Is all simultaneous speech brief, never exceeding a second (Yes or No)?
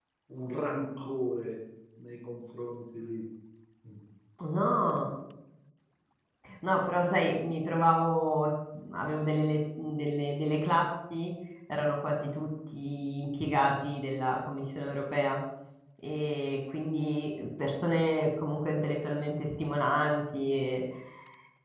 Yes